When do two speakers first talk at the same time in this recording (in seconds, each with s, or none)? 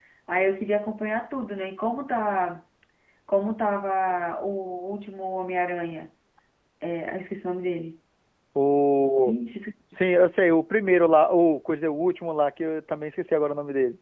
none